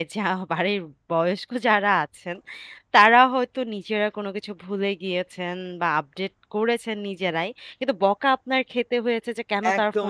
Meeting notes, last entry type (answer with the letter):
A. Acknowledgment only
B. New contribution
B